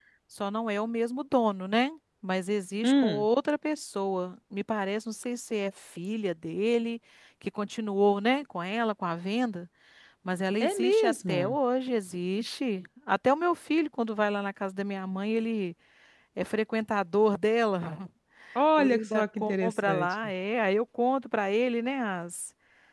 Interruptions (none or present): present